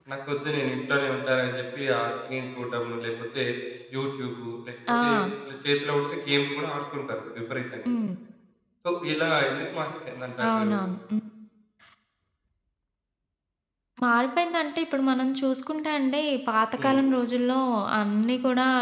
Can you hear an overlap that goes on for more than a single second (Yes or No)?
No